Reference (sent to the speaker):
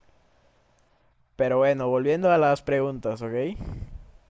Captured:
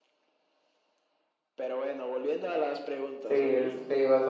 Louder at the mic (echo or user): user